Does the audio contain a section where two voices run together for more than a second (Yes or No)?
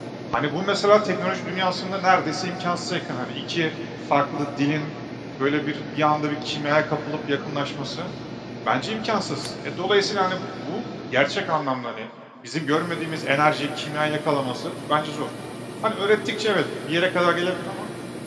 No